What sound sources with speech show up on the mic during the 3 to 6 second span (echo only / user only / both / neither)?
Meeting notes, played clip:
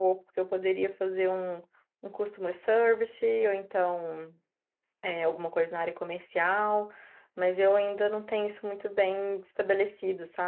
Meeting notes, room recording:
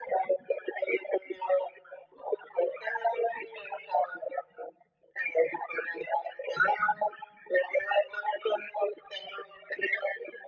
echo only